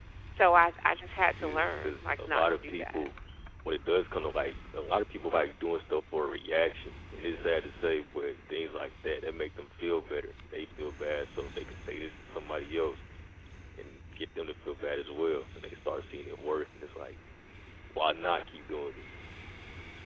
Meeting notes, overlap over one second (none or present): present